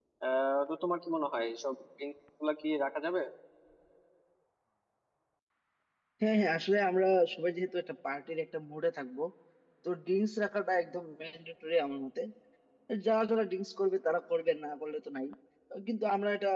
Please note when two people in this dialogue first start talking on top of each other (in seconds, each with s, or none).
none